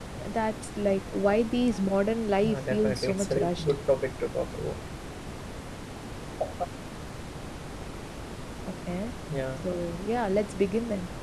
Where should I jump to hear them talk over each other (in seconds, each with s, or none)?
2.4 s